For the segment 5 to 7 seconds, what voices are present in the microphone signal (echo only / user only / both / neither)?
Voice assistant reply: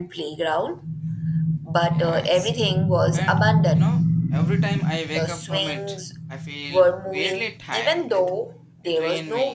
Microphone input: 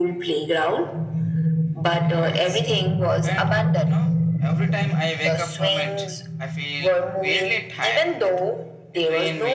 echo only